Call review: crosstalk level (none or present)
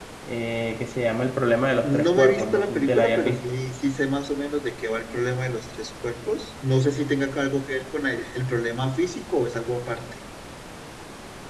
present